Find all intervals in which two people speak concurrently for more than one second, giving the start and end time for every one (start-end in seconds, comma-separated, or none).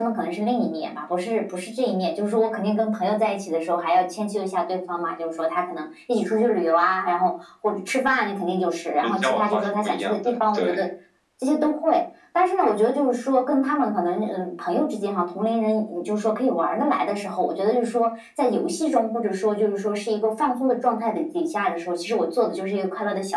9.0-10.8